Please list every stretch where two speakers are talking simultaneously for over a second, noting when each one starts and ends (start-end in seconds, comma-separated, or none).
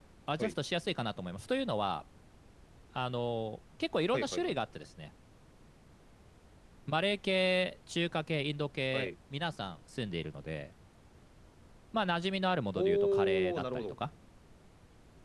12.8-14.0